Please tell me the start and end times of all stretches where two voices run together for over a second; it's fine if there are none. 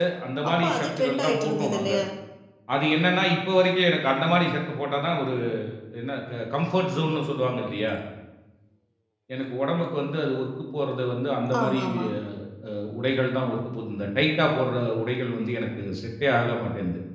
0.5-1.9

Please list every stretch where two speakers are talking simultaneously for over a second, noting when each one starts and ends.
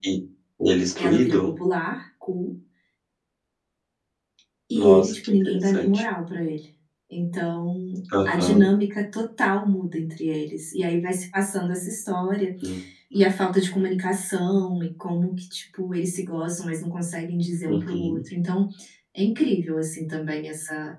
4.8-6.0

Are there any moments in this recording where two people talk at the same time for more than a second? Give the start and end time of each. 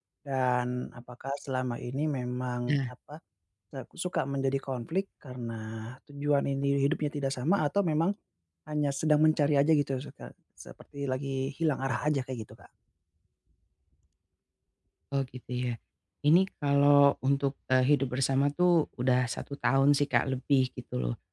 none

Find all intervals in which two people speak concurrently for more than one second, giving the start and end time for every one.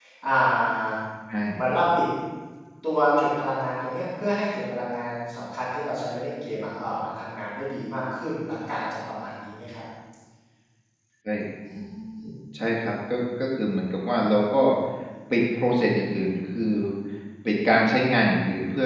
none

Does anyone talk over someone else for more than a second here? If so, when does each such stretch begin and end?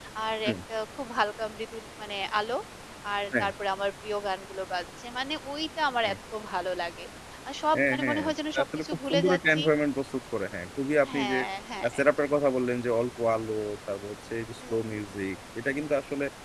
7.8-9.6

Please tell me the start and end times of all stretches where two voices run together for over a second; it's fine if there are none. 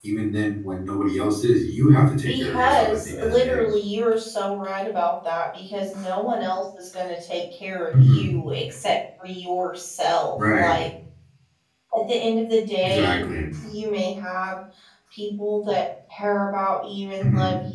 2.2-3.6

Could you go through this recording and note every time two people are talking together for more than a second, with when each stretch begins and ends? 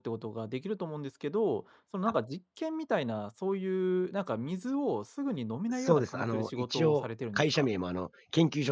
5.7-7.7

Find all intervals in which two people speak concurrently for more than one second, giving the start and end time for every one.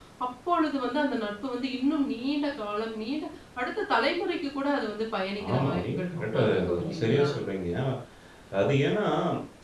5.5-7.2

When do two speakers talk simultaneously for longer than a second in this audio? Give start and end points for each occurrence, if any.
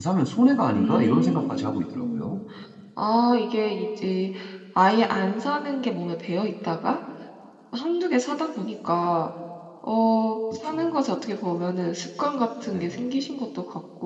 0.7-2.4

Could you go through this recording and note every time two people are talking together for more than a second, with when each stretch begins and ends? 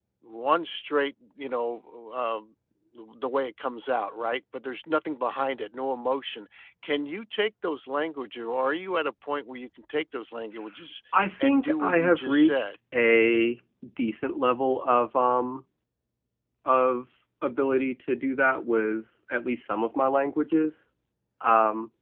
11.4-12.7

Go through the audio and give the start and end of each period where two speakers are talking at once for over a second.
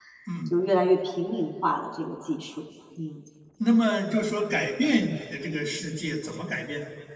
none

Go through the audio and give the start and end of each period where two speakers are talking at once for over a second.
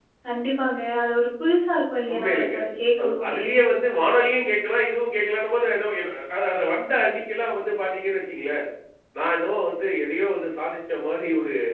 none

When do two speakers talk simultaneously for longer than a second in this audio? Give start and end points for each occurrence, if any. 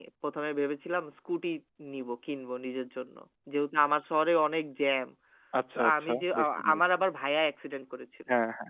5.8-7.0

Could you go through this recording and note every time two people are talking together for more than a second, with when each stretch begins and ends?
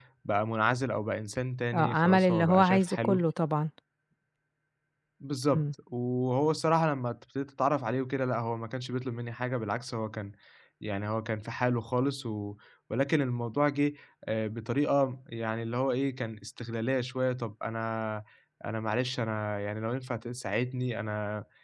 1.7-3.2

